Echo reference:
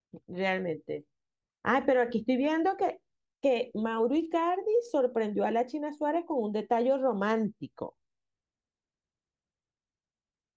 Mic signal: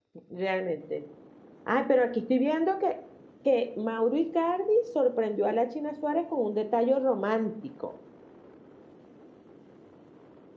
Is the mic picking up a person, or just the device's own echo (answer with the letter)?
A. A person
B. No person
B